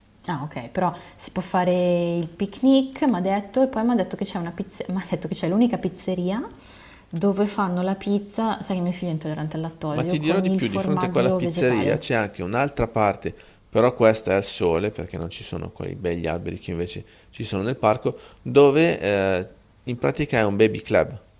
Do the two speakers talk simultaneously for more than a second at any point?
Yes, from 9.9 s

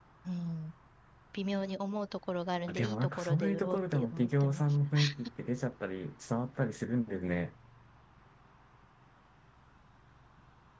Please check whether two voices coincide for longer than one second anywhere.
Yes, from 2.7 s

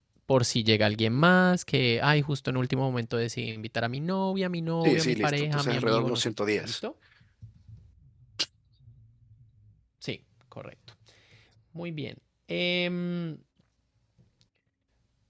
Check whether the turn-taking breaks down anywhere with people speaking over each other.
Yes, from 4.8 s

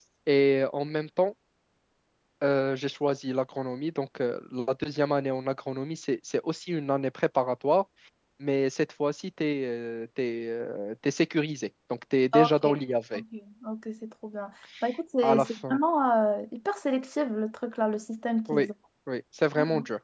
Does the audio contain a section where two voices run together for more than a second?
No

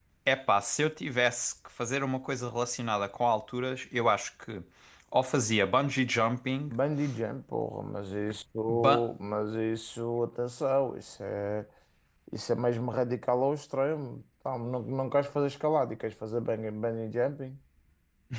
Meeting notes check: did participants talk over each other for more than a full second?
No

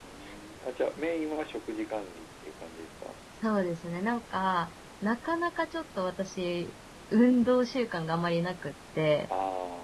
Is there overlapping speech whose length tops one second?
No

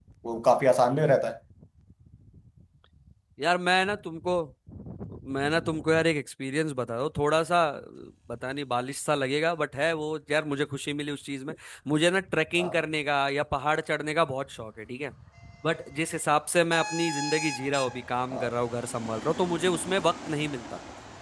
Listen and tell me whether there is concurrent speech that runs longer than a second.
No

